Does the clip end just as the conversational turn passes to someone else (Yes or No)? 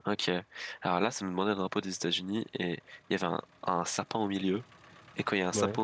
No